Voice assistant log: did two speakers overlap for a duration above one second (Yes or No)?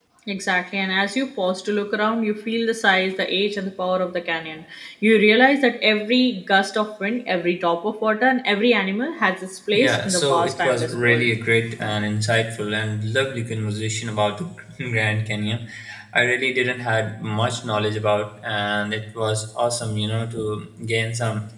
Yes